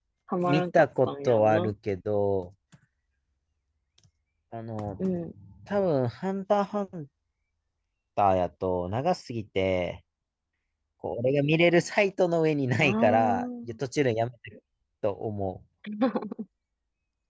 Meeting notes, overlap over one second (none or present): present